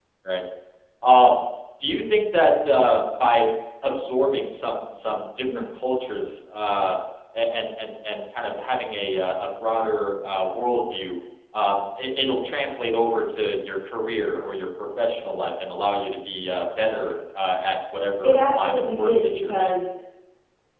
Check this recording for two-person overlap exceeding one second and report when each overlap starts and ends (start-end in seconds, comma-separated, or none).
18.2-19.7